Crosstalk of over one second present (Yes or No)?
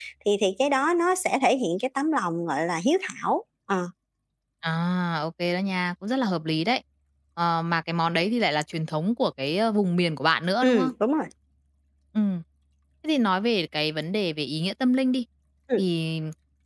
No